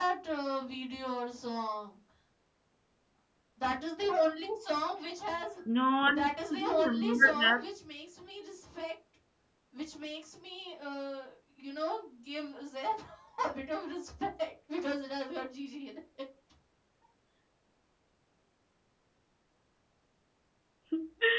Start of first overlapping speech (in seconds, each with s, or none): 6.2 s